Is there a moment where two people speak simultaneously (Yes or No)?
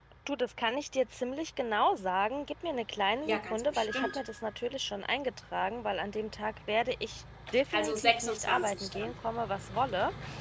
Yes